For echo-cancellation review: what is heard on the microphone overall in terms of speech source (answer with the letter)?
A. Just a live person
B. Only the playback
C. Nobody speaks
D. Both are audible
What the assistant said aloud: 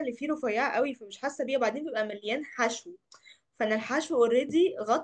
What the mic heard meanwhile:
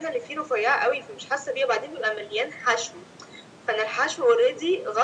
B